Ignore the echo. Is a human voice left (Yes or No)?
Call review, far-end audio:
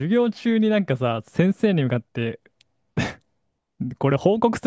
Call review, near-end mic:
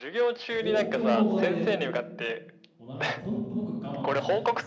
Yes